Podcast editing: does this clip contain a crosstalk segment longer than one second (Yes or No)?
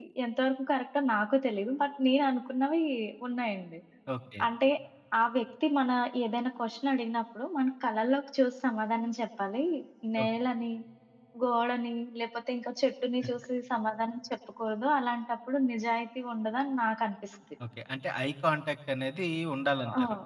No